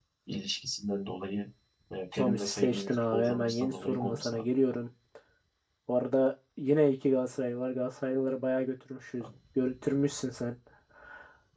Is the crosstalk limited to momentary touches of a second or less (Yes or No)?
No